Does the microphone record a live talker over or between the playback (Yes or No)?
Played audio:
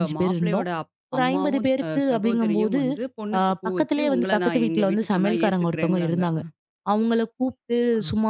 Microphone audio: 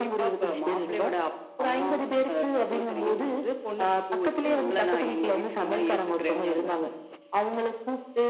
Yes